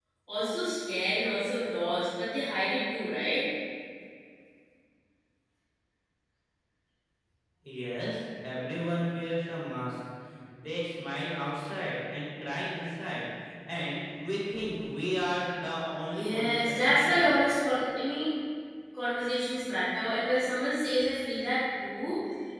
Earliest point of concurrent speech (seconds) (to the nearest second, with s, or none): 16 s